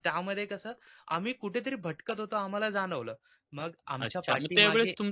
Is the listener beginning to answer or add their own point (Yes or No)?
Yes